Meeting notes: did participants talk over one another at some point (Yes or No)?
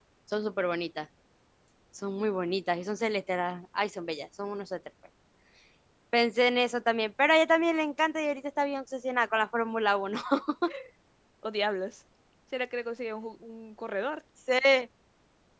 No